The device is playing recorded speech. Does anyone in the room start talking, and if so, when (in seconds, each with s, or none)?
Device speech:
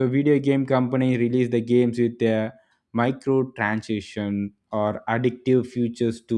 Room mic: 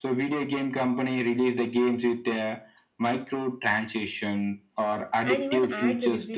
5.2 s